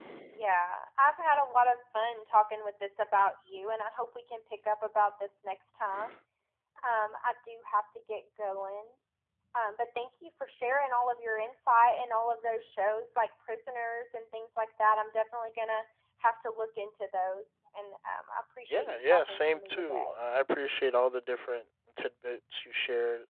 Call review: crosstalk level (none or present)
present